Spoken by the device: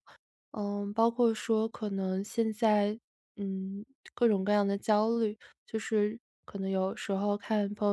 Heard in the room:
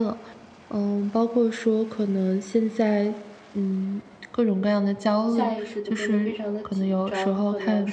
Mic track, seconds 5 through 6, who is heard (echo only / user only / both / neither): both